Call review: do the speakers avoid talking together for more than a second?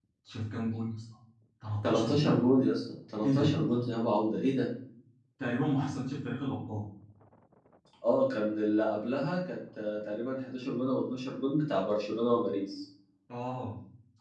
Yes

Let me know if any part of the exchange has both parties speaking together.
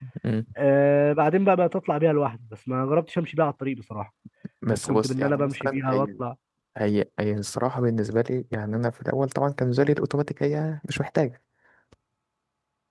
Yes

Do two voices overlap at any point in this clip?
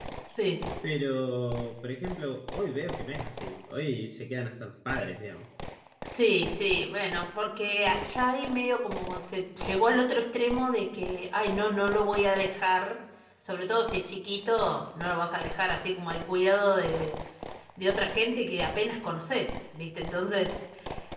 No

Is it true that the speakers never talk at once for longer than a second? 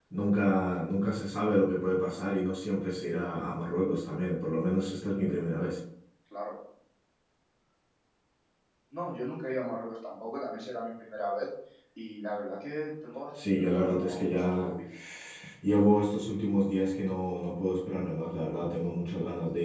No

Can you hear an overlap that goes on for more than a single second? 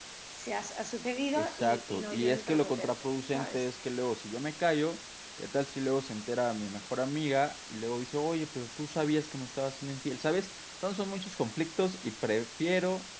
Yes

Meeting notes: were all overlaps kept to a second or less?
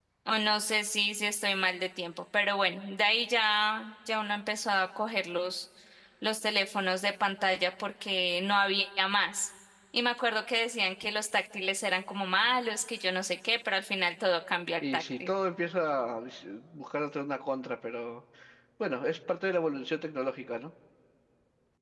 Yes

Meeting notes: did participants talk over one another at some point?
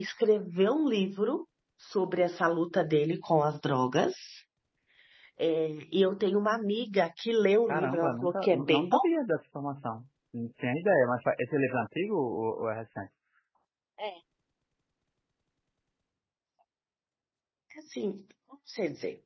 Yes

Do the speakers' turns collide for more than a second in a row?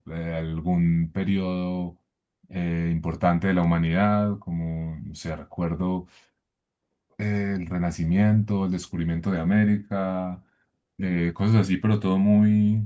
No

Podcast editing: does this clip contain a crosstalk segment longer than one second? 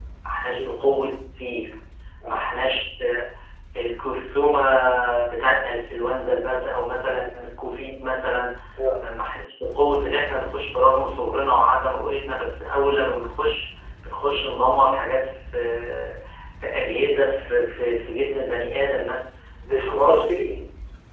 No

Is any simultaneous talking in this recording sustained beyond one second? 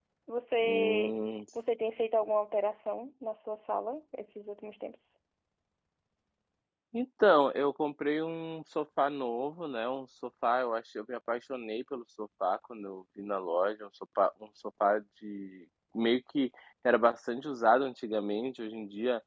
No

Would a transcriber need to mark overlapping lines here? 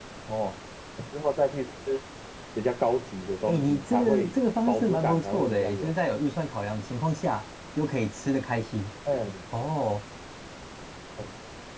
Yes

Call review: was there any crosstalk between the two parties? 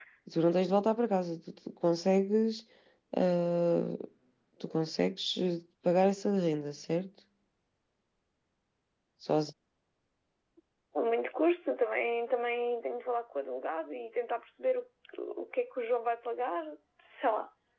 No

